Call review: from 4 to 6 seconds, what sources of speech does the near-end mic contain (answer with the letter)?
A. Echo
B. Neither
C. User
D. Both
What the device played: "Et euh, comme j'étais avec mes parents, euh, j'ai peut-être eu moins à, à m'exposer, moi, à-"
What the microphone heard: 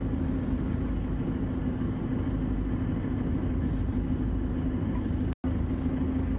B